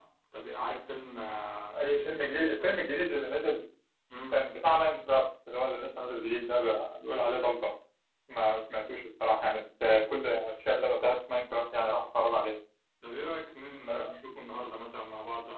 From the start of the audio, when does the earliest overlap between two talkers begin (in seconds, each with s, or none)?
1.8 s